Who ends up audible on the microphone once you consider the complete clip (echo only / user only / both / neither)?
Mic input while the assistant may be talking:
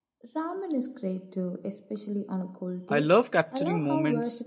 both